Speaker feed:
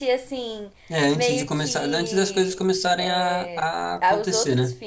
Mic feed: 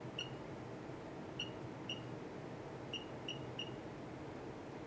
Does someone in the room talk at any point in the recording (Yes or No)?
No